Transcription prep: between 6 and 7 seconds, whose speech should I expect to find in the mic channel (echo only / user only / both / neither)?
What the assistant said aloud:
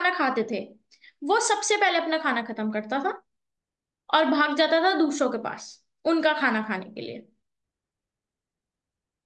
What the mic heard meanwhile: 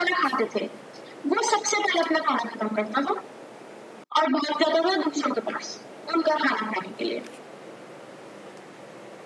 echo only